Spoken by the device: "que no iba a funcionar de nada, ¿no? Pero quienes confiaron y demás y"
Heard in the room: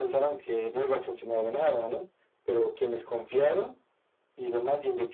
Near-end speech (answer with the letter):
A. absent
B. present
A